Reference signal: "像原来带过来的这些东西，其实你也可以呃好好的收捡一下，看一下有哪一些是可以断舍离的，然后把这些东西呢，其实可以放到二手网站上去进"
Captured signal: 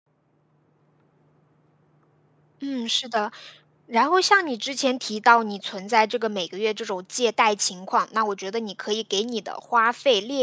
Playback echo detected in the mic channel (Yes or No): No